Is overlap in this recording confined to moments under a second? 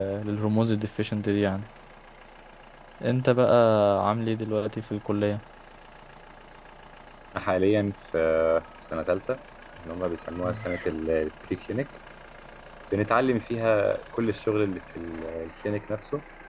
Yes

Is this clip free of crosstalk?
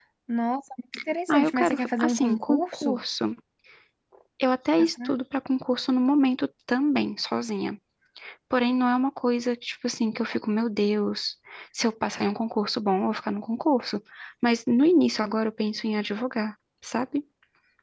No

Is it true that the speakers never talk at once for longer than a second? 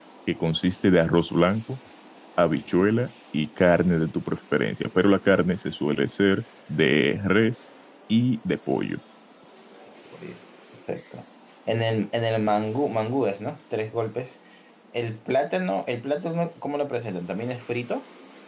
Yes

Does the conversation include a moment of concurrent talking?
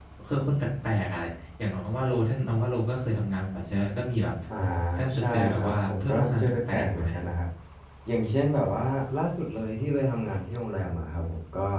Yes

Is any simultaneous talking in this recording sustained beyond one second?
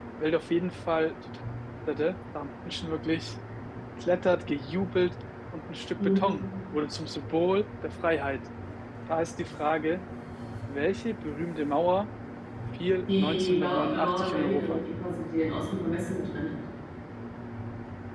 Yes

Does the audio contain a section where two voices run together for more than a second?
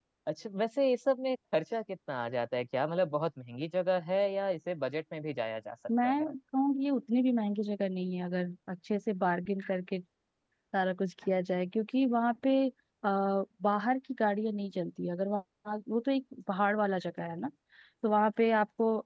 No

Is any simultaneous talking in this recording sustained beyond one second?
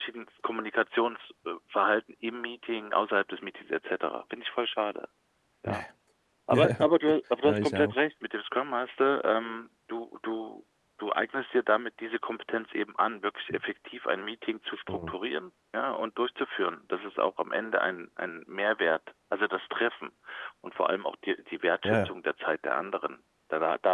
No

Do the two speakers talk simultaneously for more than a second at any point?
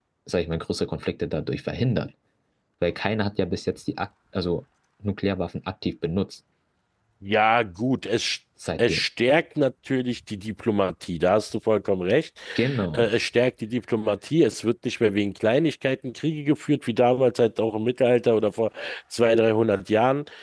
No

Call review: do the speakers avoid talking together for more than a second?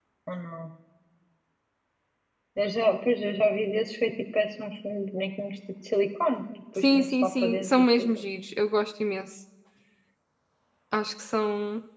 No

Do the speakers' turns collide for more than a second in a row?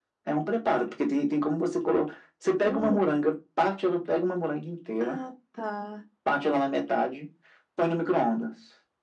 No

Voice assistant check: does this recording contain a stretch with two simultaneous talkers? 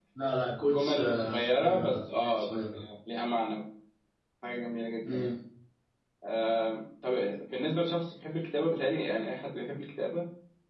Yes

